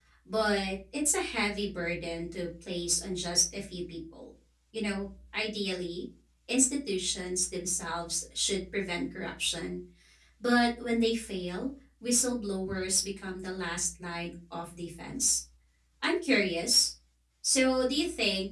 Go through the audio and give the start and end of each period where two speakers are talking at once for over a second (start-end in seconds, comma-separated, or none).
none